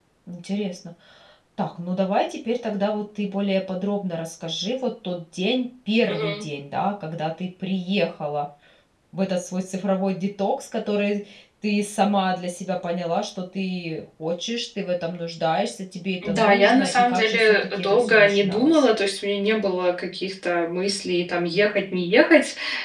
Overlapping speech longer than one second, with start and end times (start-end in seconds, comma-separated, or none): 16.2-18.8